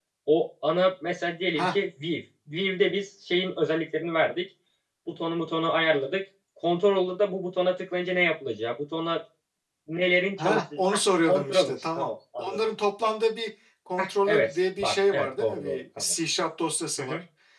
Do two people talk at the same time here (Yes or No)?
Yes